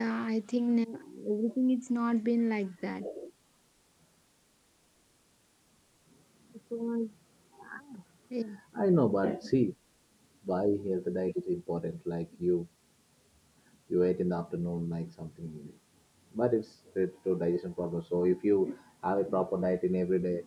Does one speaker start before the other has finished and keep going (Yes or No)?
No